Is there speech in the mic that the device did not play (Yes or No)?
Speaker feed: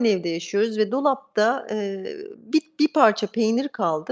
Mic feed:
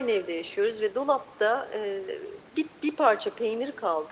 No